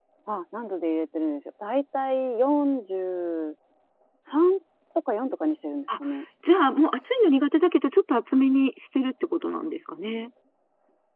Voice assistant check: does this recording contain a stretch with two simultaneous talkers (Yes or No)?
No